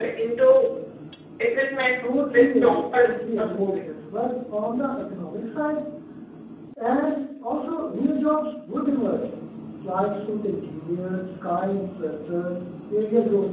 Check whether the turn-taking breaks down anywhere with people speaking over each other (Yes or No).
Yes